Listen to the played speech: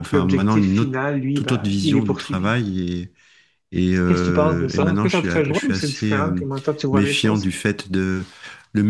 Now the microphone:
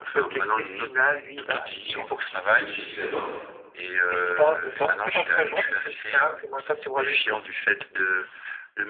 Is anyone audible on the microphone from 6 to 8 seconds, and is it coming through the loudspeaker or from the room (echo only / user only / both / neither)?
echo only